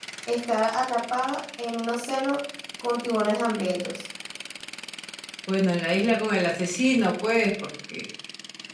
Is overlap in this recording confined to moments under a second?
Yes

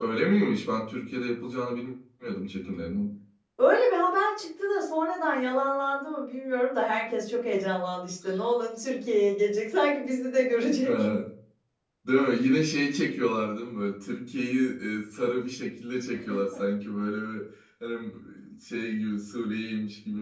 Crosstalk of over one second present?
No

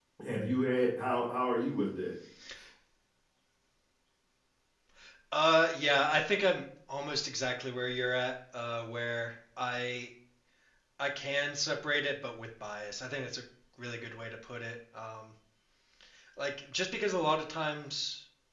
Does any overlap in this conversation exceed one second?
No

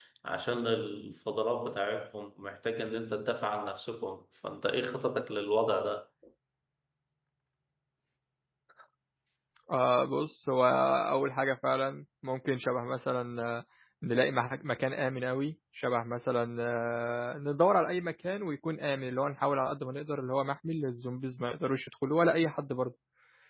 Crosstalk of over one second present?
No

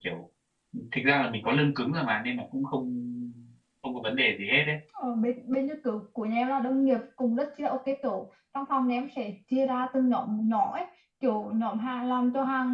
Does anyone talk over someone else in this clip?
No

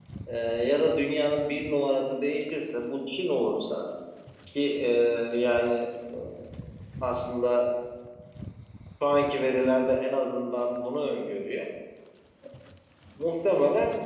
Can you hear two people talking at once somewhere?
No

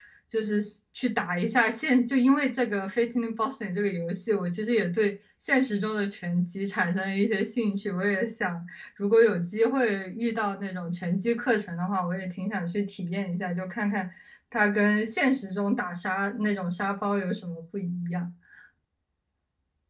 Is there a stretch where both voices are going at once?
No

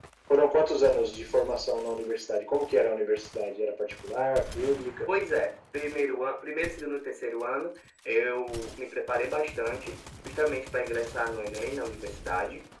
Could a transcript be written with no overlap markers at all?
Yes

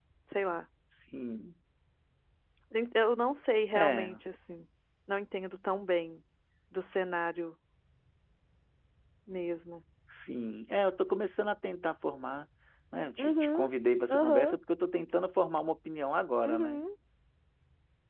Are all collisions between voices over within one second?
Yes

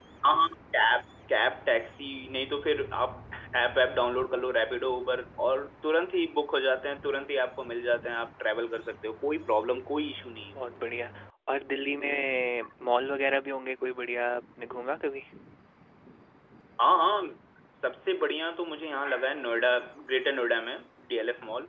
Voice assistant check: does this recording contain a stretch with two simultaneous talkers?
No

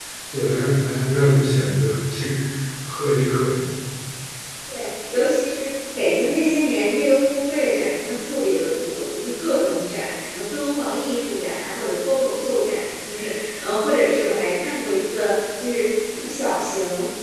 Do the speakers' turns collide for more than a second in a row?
No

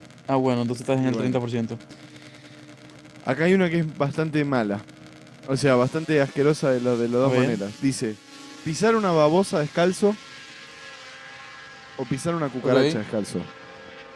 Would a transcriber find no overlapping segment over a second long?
Yes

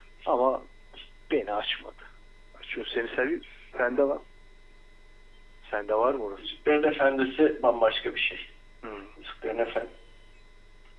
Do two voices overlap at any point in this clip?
No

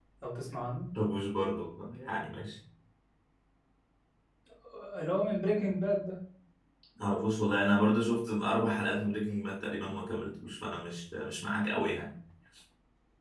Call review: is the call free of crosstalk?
Yes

